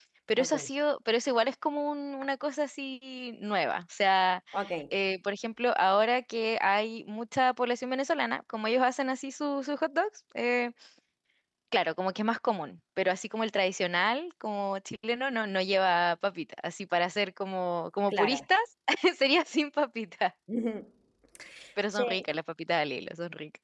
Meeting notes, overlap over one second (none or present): none